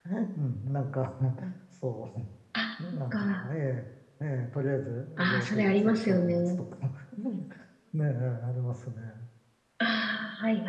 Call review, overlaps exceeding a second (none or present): present